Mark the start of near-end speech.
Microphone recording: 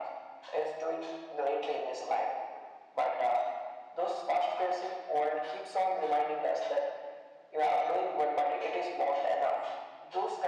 none

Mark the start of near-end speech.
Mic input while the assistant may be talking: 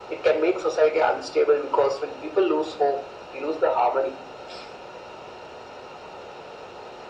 none

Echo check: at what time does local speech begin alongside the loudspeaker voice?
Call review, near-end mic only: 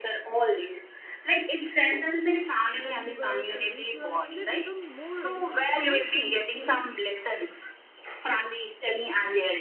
2.8 s

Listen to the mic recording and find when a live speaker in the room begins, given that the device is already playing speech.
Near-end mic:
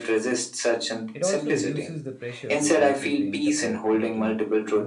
1.1 s

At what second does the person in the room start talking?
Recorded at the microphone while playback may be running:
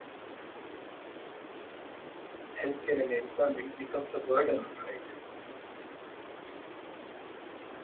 2.6 s

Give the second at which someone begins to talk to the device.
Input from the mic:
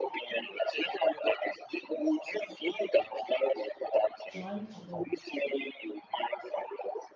4.3 s

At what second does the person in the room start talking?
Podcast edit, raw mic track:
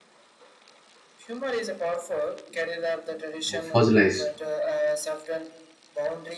3.6 s

